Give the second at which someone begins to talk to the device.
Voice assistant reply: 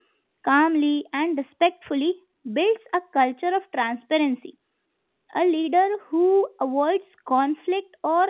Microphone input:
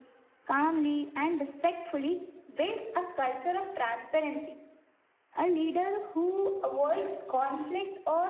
none

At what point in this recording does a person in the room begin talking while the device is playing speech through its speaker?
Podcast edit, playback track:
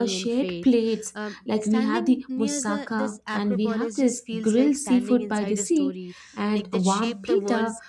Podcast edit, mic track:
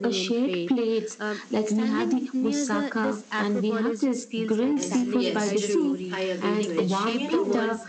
4.8 s

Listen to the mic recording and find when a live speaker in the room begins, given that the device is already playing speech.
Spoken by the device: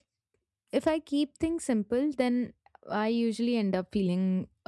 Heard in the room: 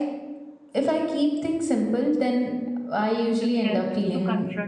3.3 s

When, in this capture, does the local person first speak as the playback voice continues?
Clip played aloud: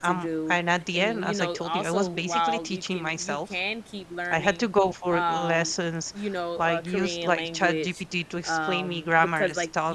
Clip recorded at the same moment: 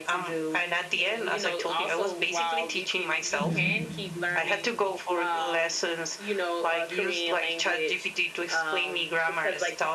3.4 s

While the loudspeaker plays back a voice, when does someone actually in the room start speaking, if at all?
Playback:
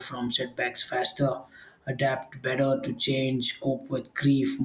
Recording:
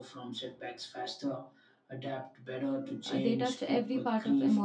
3.1 s

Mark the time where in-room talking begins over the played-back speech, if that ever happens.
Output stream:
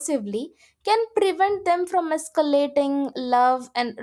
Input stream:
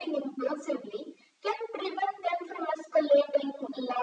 none

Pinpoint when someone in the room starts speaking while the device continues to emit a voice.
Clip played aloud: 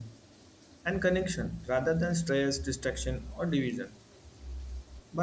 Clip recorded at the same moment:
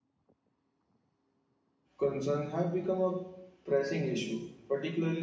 2.0 s

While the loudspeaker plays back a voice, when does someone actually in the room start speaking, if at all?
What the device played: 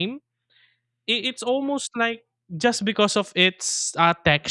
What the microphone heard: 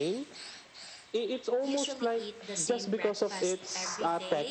1.6 s

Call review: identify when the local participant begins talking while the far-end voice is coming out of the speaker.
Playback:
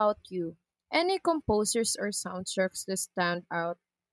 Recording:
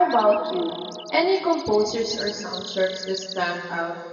none

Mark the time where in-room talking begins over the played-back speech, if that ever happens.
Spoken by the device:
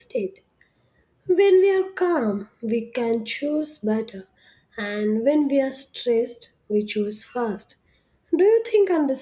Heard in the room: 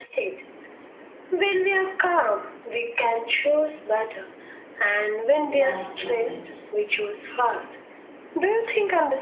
5.5 s

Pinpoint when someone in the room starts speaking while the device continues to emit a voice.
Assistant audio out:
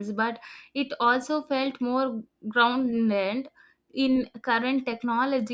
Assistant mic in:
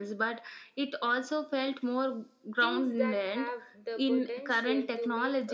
2.6 s

